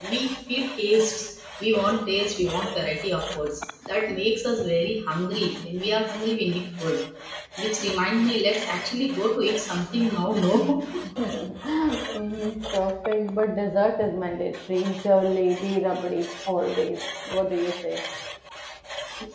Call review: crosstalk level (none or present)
none